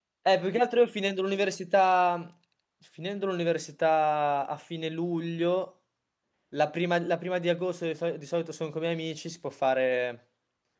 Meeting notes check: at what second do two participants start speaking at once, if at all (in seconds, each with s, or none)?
none